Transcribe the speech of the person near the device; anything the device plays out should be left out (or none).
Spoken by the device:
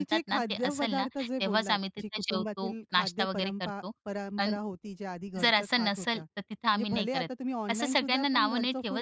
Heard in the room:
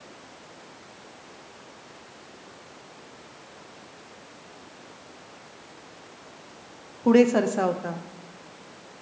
पुढे सरसावता?